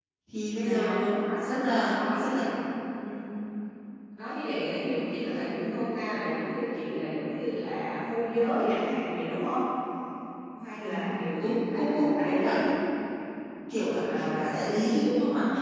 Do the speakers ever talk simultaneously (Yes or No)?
Yes